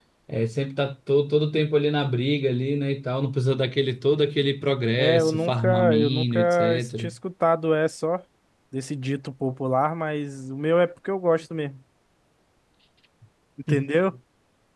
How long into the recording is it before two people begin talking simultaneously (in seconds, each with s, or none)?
5.0 s